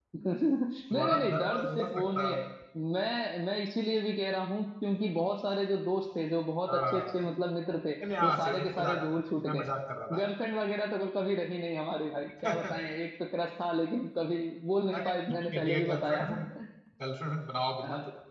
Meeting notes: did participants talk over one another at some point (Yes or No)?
Yes